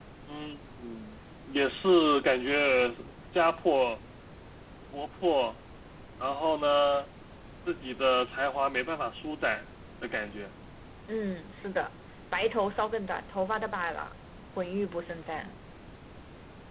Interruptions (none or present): none